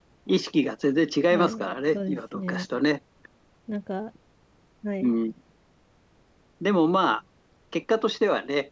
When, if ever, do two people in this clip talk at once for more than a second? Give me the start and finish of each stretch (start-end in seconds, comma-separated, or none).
1.3-2.7